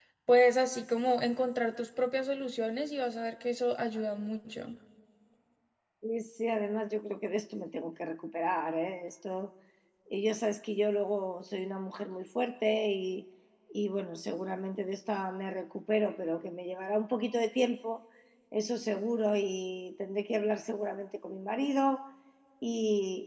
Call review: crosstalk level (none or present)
none